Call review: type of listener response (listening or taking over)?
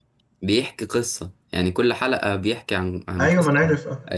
taking over